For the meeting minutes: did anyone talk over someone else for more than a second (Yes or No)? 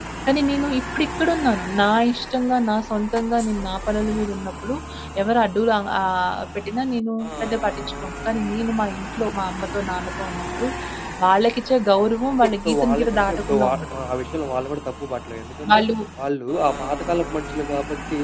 Yes